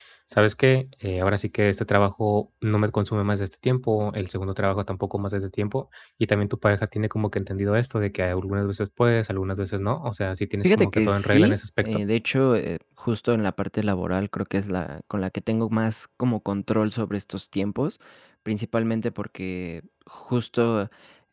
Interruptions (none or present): present